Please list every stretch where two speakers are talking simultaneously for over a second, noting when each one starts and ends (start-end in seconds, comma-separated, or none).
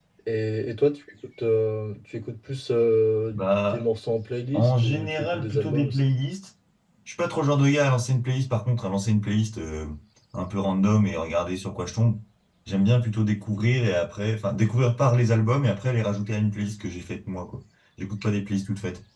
4.5-6.0